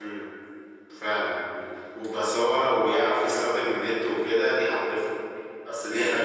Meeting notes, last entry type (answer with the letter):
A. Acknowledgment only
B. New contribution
A